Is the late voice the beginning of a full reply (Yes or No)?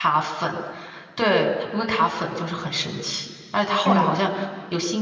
No